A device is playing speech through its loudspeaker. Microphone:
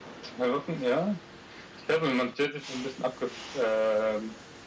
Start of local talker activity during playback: none

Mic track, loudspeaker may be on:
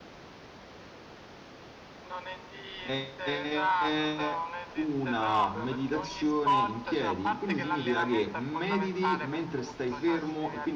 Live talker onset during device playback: 2.8 s

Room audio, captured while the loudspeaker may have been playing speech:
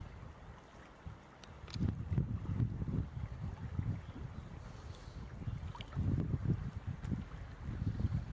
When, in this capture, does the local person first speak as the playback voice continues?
none

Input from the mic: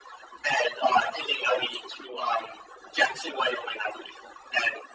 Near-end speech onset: none

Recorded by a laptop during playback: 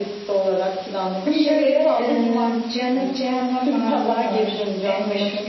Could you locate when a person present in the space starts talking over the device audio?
none

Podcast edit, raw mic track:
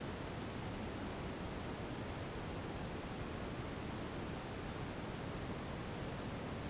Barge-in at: none

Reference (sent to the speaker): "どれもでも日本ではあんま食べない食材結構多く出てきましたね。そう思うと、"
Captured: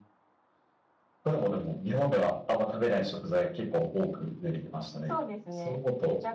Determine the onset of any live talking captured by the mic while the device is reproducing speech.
5.0 s

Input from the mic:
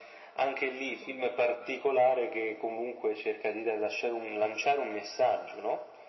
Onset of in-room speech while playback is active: none

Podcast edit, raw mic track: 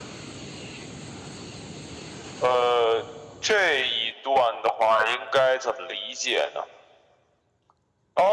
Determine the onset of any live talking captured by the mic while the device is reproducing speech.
none

